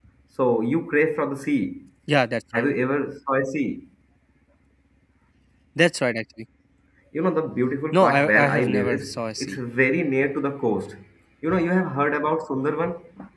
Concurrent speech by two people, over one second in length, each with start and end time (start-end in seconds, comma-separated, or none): 7.9-9.6